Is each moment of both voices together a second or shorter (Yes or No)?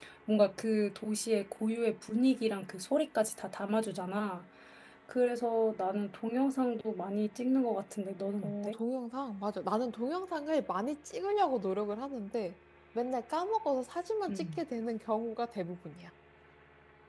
Yes